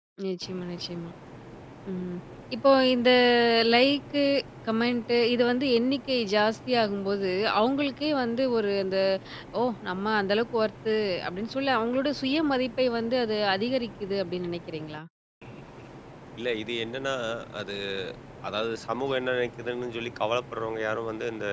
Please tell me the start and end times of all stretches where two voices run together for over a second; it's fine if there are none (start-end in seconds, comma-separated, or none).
none